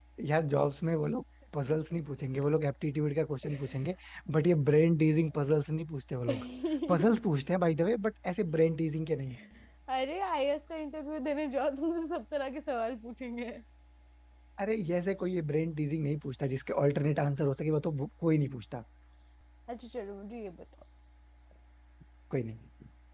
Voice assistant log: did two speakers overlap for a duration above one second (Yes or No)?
No